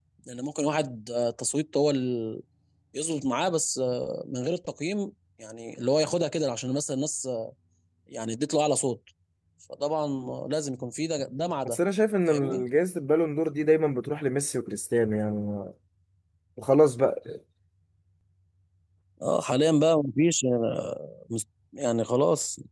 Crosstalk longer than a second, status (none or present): none